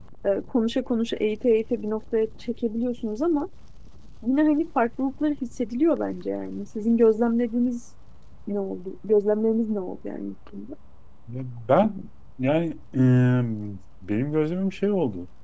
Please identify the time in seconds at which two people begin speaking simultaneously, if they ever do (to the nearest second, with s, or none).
none